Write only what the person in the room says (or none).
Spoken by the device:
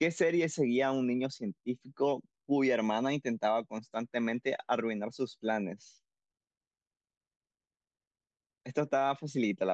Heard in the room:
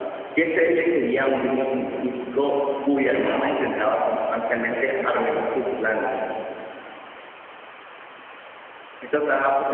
none